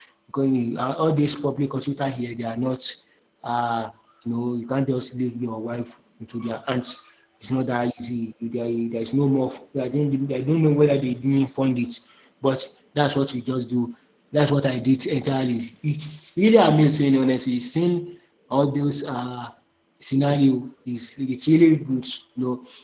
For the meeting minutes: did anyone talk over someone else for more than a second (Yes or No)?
No